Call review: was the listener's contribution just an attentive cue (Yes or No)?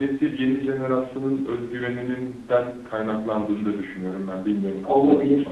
No